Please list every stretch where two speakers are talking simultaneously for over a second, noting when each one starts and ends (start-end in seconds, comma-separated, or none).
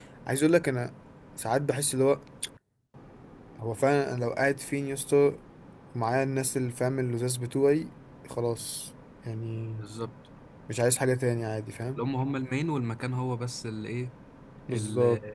none